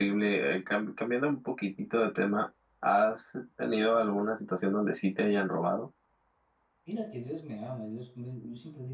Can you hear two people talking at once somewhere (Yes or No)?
No